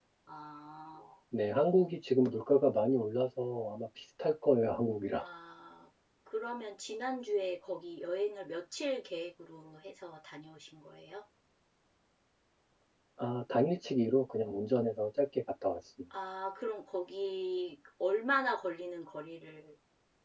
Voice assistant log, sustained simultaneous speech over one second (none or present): none